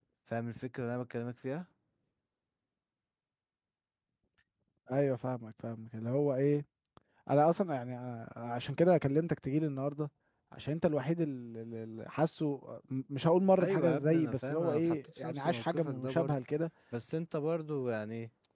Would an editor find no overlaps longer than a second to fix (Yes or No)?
No